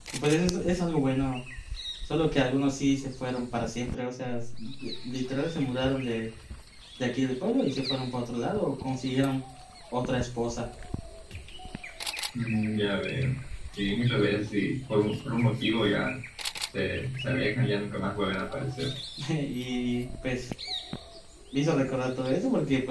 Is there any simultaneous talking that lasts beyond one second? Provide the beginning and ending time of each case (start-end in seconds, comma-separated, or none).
none